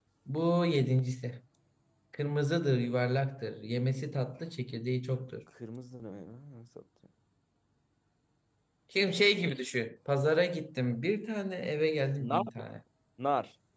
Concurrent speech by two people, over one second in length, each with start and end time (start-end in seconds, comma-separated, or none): none